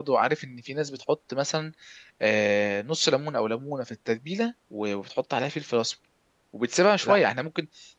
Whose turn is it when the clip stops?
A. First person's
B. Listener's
A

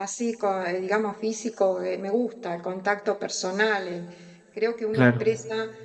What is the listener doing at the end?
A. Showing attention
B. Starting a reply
A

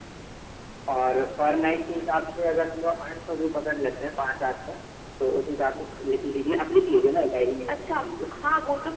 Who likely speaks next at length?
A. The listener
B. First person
A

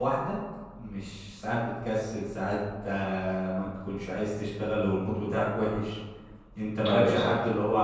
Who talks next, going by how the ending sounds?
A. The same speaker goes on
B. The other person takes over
A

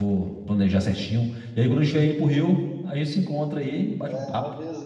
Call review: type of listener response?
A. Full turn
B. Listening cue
A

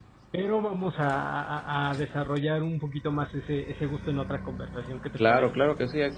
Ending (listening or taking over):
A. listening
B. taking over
B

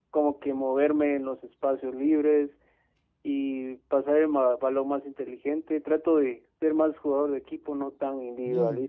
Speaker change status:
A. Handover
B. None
A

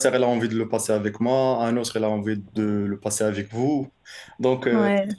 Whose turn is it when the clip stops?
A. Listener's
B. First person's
B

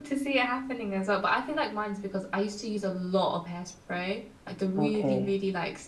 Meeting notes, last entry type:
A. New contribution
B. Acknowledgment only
B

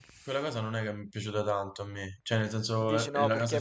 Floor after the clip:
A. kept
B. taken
B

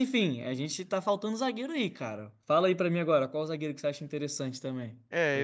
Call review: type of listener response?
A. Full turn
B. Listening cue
A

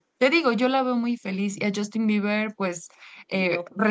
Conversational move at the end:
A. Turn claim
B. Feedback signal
B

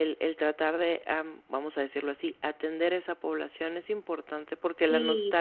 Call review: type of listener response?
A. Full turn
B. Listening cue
B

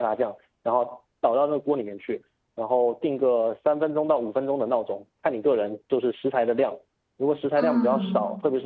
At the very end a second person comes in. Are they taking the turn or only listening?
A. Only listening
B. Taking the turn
A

